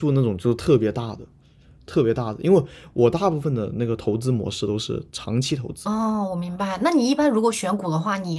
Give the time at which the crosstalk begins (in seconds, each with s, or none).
none